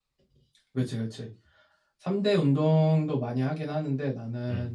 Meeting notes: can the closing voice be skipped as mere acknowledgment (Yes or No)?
Yes